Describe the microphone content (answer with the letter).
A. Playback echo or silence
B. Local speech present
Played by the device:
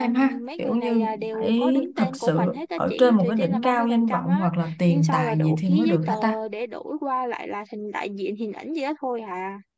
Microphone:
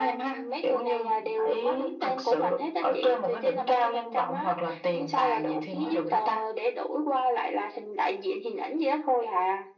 A